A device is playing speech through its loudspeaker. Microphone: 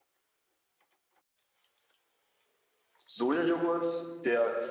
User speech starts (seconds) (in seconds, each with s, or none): 3.0 s